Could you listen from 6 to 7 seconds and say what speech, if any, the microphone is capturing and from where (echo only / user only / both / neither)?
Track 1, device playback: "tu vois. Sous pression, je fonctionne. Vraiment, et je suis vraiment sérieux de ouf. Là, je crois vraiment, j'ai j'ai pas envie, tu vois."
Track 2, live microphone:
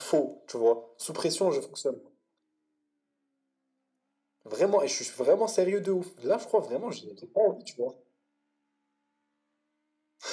echo only